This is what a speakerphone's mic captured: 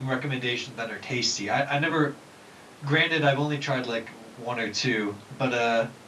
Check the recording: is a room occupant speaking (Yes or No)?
Yes